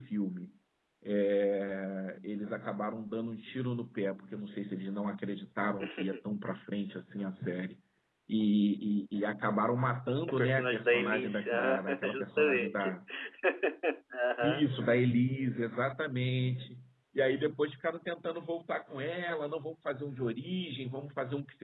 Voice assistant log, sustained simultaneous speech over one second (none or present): present